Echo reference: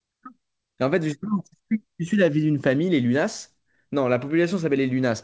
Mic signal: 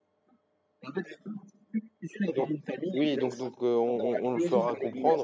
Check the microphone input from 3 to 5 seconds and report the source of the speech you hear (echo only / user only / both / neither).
both